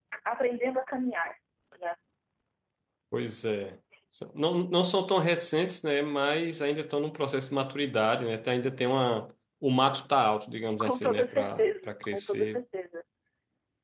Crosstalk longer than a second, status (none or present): present